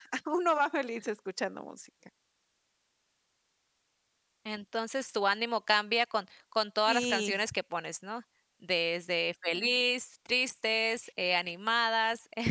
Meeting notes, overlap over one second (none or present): none